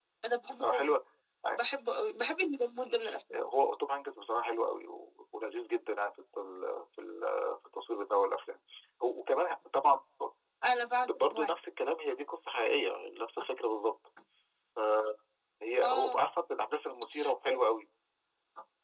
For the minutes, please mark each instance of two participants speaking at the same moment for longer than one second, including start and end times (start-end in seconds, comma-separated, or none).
none